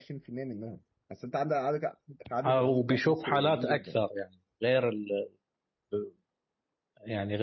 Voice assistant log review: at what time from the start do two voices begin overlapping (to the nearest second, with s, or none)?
2 s